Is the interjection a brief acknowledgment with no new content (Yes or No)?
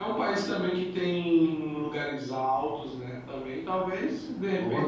Yes